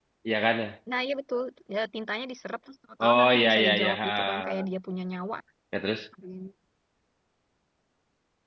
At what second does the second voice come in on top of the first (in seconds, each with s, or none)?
3.0 s